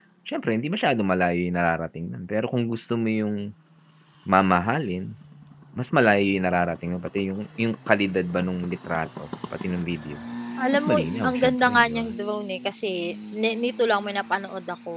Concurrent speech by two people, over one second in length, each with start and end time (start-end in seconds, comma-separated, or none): 10.9-12.1